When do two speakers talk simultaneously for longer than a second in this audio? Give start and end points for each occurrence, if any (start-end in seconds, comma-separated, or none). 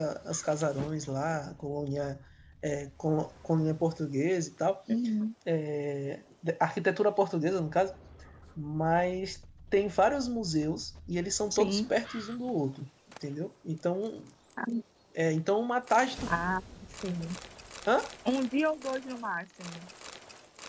none